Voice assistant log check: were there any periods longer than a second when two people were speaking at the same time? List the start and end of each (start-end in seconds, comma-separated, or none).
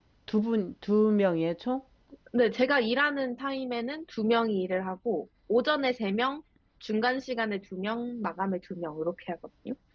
none